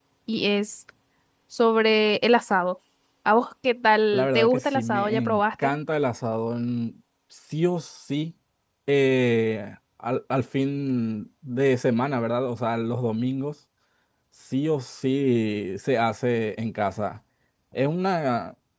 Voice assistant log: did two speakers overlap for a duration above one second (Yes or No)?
Yes